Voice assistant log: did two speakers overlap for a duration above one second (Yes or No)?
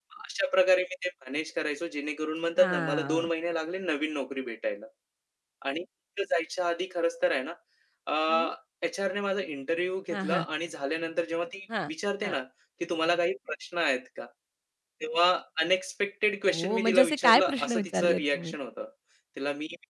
Yes